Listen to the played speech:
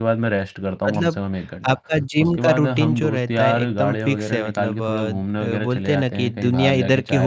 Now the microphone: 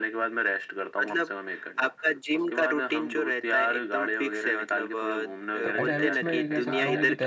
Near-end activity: present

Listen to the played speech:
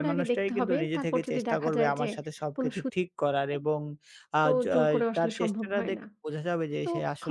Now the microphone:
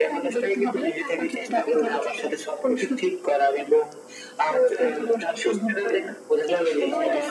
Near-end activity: present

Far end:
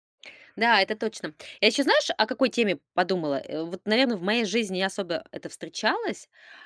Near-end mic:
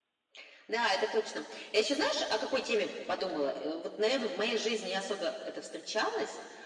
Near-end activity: none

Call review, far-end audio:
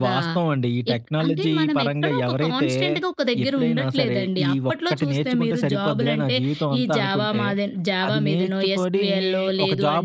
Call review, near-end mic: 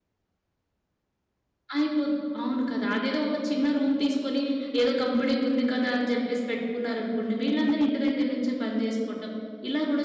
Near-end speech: present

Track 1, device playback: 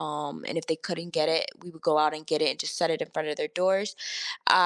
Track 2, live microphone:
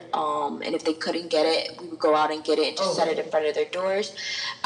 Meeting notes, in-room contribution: present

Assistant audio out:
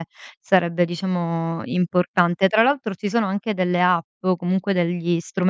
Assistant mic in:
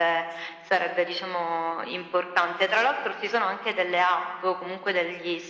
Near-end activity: none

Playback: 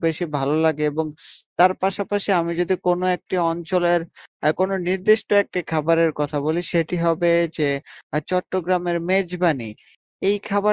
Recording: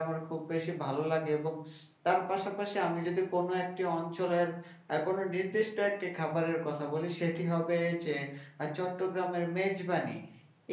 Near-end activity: none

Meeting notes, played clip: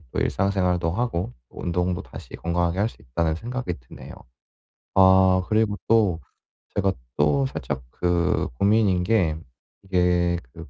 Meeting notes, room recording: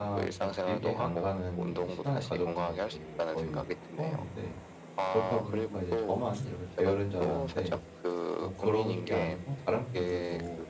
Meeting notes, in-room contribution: present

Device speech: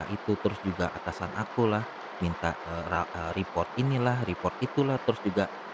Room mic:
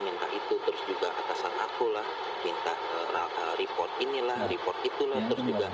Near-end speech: present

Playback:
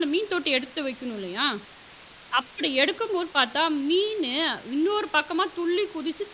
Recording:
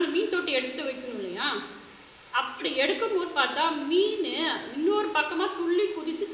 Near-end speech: none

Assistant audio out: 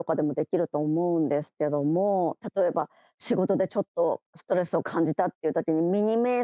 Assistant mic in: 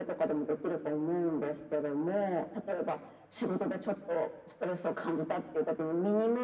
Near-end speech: none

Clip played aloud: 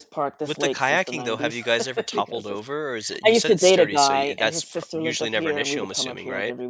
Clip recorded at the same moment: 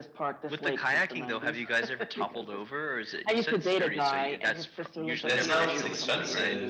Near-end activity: present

